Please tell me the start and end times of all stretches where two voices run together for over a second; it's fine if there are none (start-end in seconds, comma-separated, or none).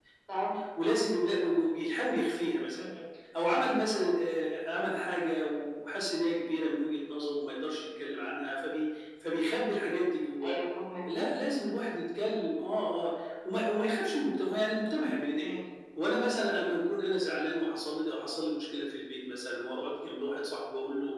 none